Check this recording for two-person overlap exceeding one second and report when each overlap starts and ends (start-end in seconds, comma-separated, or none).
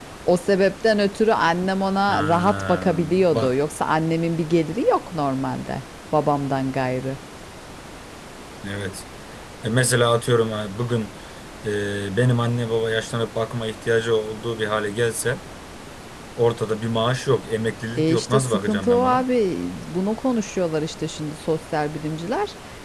2.1-3.6, 18.0-19.2